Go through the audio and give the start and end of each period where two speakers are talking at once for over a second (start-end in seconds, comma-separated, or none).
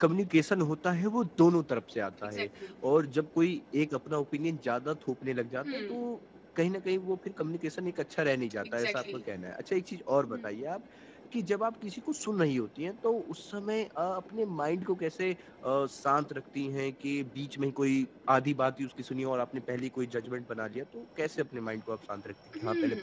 none